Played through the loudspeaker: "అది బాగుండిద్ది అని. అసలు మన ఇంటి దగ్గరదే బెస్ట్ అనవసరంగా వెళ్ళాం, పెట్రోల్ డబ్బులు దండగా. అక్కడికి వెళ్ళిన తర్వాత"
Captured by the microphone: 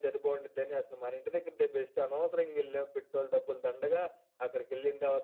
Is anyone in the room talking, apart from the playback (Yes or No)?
No